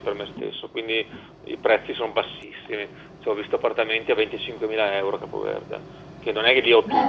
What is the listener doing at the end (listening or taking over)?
listening